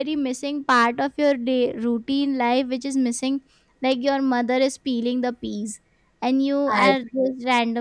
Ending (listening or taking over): listening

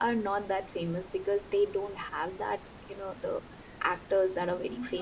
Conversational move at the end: taking over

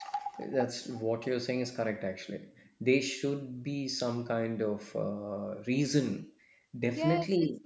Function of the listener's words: taking over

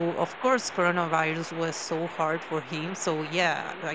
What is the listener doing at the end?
listening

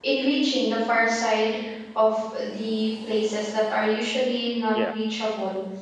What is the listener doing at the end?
listening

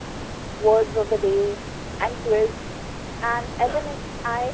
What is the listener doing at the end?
listening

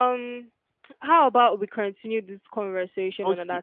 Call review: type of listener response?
taking over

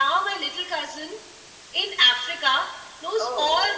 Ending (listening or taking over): listening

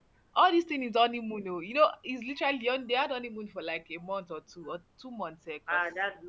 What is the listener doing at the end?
taking over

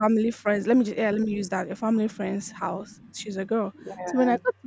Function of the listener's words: listening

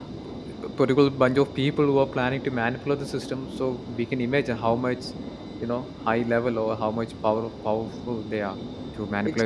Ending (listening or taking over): taking over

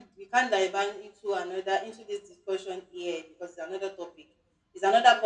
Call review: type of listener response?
listening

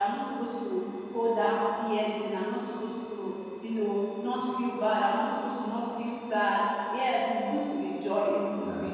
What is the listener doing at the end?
listening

